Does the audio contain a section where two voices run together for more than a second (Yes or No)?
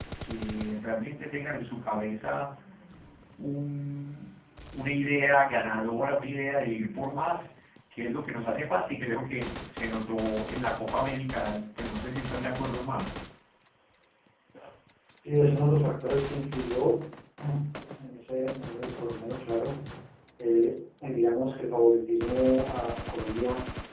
No